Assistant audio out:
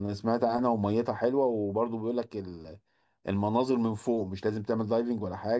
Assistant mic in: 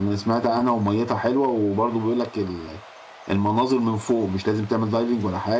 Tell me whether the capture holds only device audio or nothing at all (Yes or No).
Yes